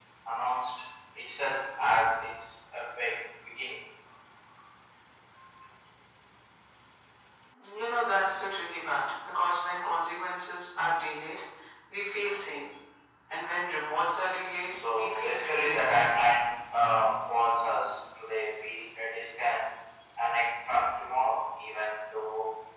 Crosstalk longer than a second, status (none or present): present